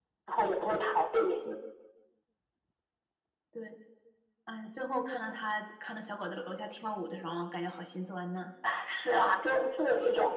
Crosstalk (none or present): none